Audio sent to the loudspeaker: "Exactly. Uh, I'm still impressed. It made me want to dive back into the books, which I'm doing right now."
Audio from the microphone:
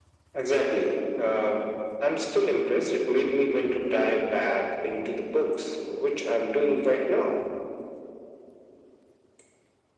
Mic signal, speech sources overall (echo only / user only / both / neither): echo only